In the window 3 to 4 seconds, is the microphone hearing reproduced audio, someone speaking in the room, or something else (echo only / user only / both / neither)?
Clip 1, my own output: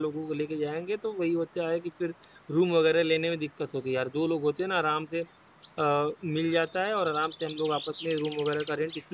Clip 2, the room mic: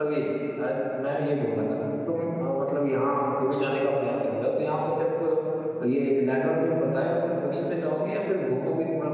user only